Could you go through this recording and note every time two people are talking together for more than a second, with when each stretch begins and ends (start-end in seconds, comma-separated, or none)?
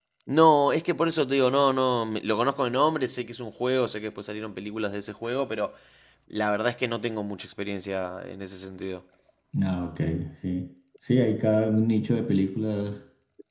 none